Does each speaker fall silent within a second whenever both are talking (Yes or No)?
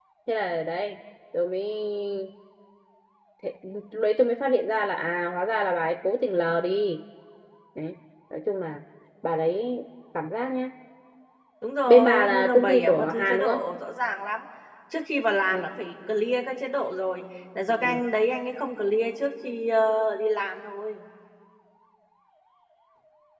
No